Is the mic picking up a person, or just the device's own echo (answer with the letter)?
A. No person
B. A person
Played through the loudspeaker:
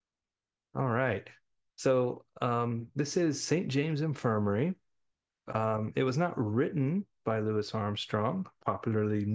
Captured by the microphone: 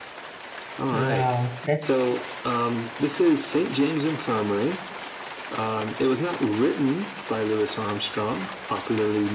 B